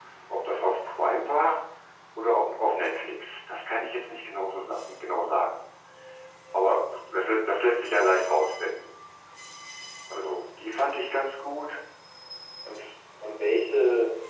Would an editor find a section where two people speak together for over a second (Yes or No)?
No